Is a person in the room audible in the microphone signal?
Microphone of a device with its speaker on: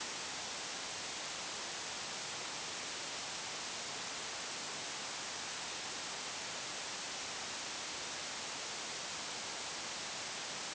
No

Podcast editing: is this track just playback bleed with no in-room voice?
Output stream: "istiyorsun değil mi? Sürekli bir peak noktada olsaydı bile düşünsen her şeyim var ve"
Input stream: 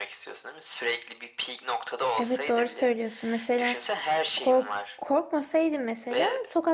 No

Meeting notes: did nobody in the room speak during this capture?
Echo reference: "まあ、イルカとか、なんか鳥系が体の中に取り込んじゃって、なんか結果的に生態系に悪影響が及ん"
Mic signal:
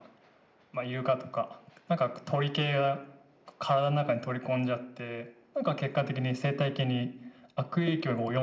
Yes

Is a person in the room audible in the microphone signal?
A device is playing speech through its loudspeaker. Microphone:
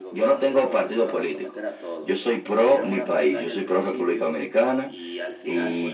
Yes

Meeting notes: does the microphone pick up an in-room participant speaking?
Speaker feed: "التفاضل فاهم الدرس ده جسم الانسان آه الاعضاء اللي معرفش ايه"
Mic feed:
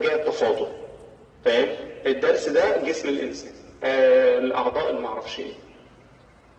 No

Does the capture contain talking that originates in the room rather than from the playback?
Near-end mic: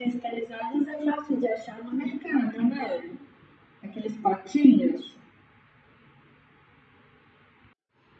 No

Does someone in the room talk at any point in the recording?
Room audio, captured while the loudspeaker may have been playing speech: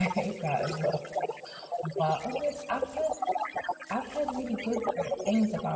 Yes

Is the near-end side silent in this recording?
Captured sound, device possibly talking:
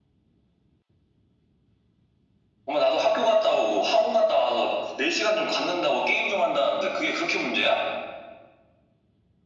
Yes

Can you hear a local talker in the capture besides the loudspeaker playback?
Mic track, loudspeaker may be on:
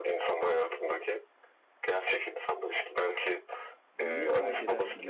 Yes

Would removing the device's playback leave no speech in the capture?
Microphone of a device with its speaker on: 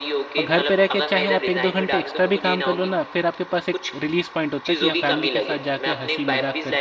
No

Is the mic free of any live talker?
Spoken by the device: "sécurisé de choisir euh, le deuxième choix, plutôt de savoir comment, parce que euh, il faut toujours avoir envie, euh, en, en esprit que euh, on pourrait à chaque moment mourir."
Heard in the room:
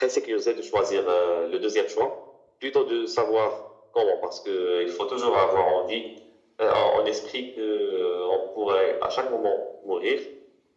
Yes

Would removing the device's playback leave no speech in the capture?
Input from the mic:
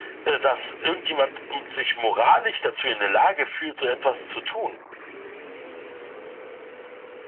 Yes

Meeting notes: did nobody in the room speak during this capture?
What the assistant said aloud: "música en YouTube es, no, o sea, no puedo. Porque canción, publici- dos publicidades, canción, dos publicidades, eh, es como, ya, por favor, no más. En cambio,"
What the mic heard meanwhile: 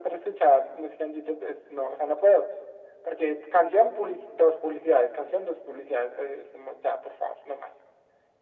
Yes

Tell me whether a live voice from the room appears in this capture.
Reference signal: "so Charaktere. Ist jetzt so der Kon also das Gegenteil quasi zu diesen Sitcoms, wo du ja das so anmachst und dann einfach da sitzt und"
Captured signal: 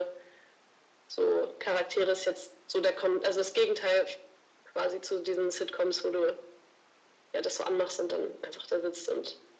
No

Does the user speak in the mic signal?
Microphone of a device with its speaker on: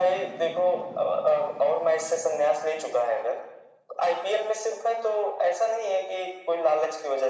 No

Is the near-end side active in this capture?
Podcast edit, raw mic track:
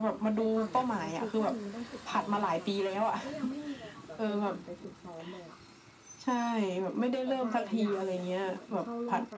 Yes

